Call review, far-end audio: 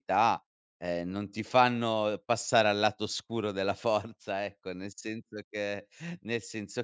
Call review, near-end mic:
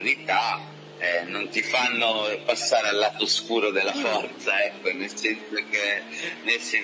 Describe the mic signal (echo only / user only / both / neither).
both